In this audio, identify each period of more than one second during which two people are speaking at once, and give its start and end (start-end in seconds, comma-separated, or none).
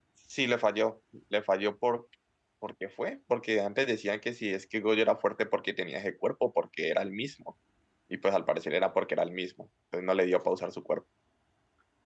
none